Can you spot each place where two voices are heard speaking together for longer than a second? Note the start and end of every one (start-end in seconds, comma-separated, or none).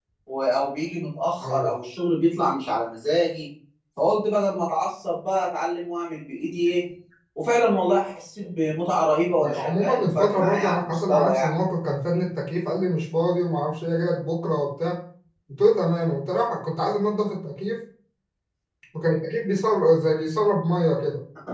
9.4-11.6